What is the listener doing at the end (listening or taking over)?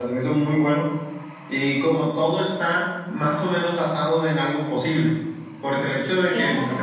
listening